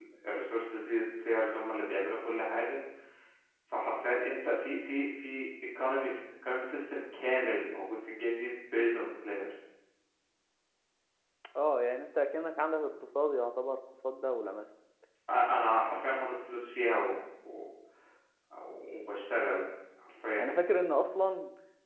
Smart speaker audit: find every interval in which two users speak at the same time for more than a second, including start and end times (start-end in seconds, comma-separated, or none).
none